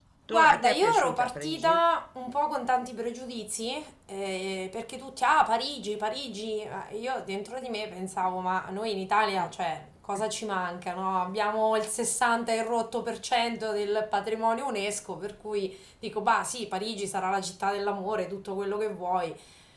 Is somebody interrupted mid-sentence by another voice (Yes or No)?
Yes